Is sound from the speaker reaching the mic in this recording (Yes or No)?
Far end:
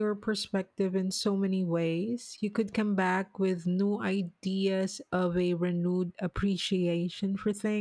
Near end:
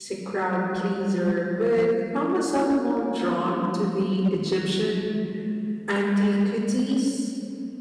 No